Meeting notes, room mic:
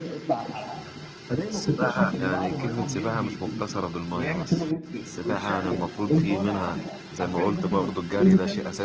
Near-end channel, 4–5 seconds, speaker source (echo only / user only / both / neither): both